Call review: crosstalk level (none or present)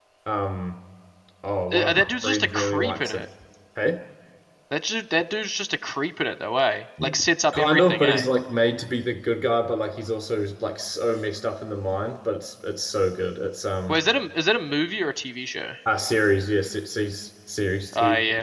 present